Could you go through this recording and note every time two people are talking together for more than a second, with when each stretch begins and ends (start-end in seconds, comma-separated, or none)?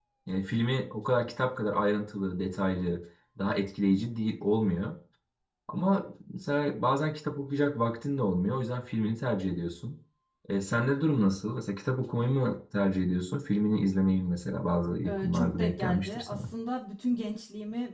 15.1-16.5